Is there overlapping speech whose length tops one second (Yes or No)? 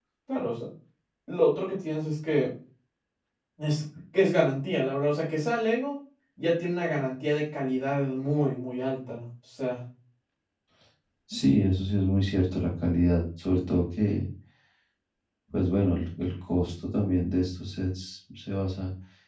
No